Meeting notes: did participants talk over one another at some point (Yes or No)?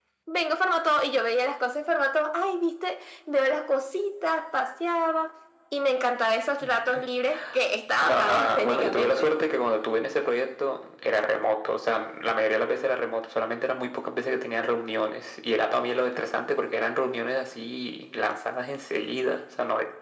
Yes